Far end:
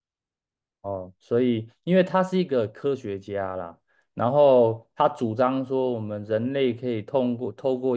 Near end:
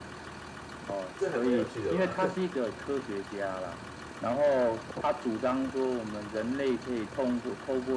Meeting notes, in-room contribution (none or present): present